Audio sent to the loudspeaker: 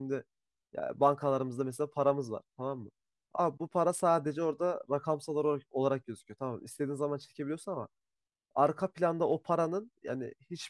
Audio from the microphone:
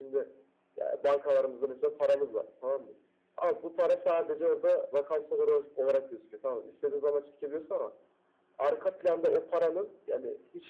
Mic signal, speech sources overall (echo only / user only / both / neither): echo only